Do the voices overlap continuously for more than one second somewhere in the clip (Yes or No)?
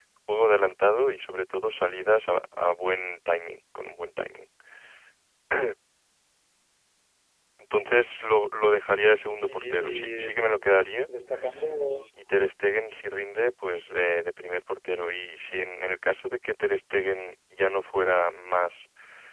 Yes